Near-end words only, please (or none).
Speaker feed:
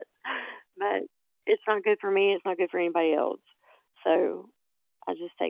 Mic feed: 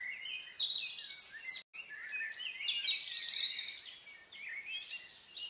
none